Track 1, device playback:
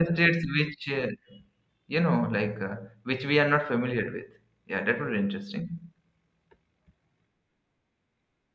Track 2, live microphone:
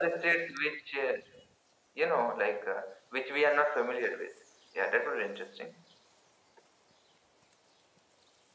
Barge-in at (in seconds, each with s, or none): none